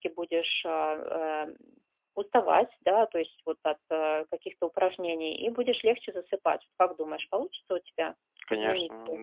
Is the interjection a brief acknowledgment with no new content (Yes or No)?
No